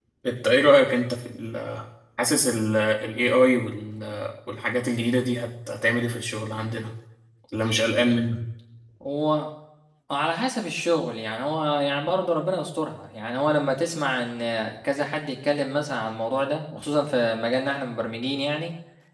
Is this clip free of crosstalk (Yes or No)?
Yes